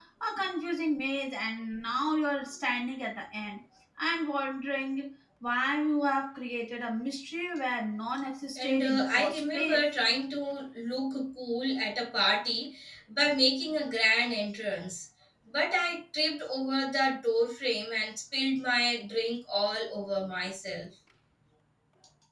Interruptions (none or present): present